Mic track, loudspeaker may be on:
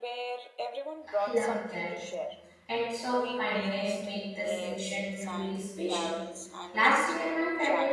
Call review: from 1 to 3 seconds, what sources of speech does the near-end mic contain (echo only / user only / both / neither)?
both